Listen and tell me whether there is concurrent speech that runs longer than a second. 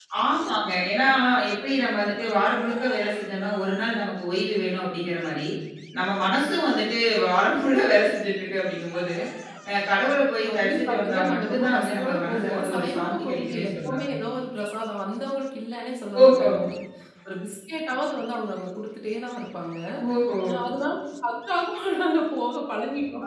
Yes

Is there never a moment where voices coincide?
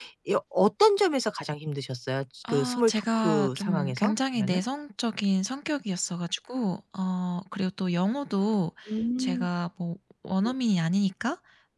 No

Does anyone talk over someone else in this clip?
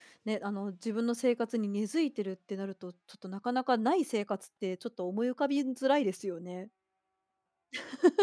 No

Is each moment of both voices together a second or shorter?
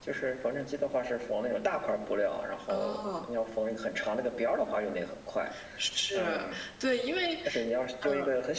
Yes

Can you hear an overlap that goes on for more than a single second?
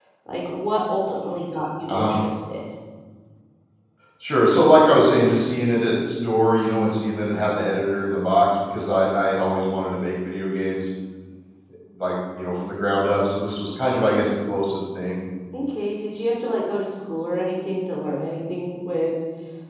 No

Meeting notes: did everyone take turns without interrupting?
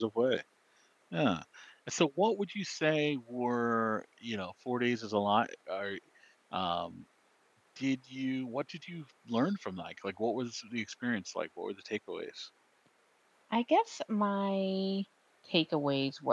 Yes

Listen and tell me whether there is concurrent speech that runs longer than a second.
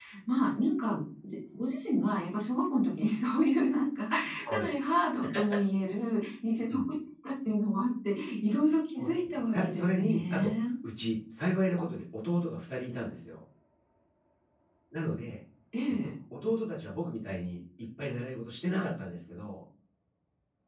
Yes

